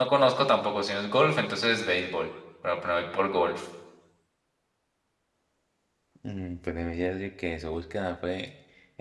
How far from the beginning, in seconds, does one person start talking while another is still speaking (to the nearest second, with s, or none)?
none